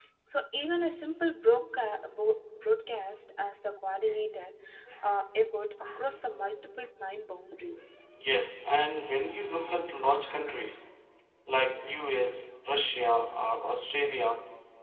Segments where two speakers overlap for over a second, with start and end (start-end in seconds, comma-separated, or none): none